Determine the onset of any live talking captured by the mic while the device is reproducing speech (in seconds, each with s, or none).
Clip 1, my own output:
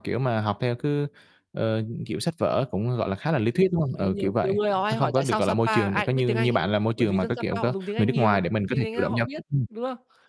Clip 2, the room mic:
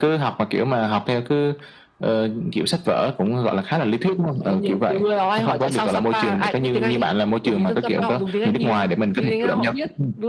none